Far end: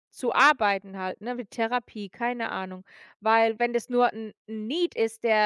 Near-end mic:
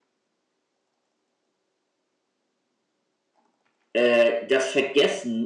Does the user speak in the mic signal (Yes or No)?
Yes